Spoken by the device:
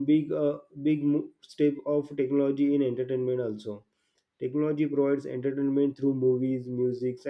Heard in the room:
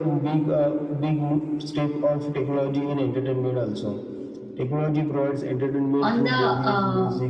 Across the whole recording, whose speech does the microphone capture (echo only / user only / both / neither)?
both